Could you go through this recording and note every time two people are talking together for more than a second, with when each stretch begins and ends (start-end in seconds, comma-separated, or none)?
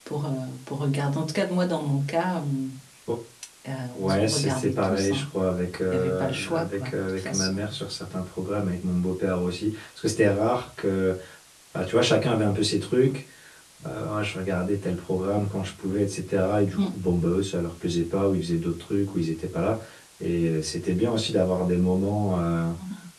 4.0-5.2, 5.9-7.6